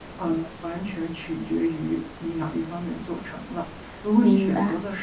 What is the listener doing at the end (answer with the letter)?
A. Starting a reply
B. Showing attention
B